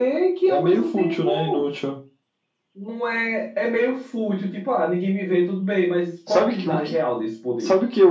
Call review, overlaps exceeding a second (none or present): present